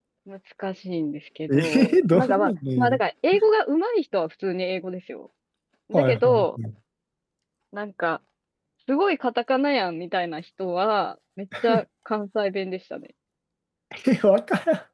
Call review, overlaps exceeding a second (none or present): present